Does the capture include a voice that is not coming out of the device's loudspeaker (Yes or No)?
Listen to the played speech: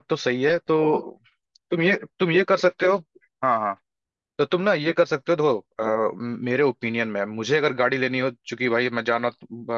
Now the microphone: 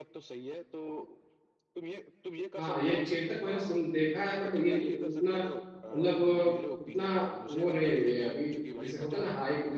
Yes